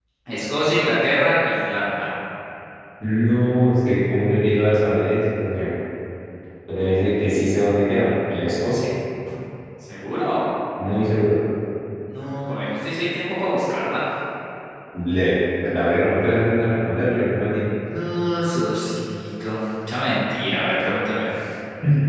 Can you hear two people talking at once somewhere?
No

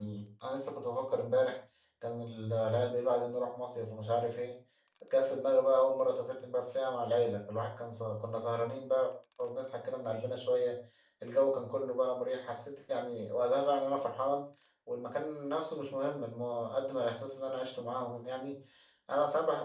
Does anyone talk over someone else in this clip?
No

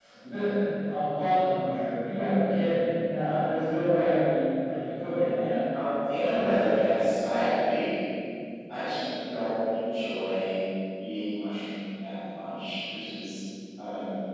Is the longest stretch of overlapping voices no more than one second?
Yes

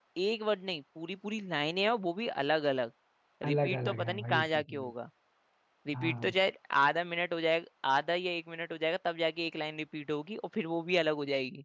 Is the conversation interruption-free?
No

